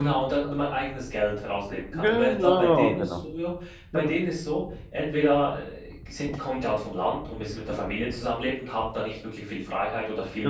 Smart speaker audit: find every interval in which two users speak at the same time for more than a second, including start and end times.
1.9-3.3

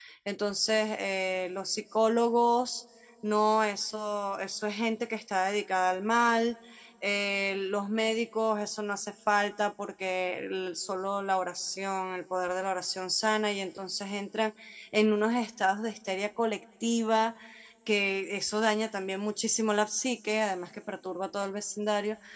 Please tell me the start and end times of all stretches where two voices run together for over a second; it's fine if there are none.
none

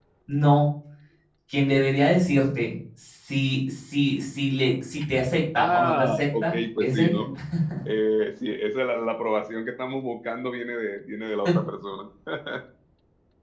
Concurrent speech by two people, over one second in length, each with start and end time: 5.6-7.2

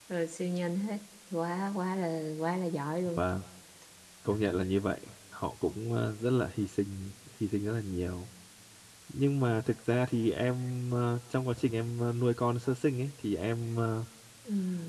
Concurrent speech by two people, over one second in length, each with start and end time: none

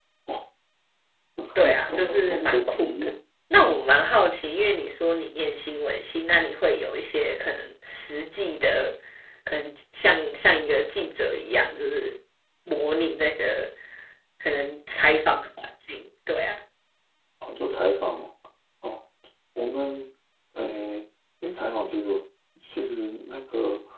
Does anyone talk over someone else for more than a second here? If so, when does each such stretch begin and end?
1.6-3.2

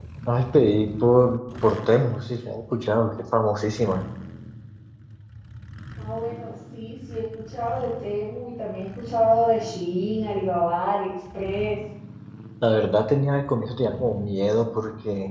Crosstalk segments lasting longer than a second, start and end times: none

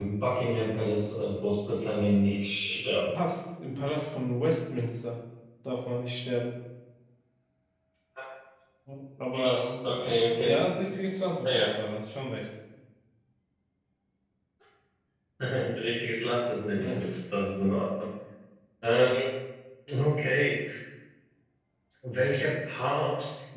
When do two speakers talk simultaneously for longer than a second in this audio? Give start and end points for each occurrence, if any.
none

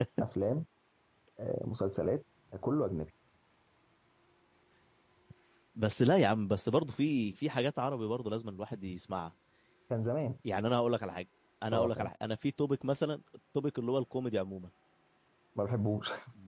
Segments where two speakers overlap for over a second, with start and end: none

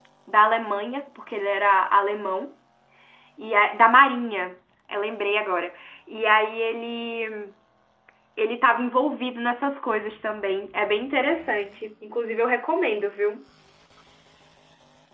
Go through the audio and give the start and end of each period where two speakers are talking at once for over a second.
none

